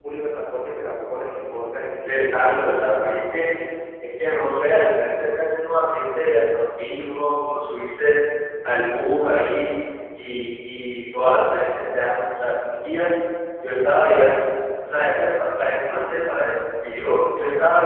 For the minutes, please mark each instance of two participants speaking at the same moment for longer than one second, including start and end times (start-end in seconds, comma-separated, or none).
2.0-3.5